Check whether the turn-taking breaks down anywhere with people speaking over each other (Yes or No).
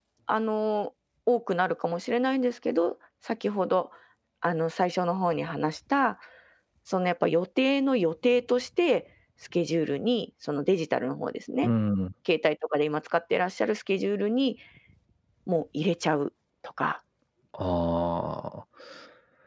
No